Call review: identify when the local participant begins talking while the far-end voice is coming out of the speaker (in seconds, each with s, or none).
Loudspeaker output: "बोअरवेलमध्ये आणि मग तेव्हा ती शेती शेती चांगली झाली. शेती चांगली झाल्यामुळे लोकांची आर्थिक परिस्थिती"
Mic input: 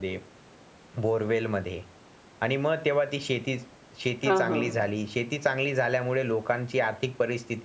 4.3 s